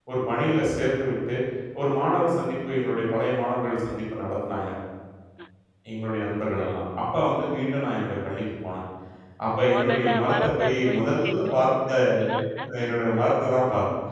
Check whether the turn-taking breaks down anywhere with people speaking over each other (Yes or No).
Yes